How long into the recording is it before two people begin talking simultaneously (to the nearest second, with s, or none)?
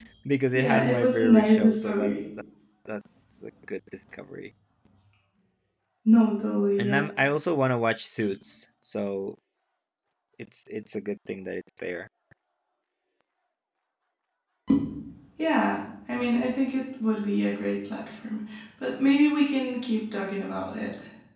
1 s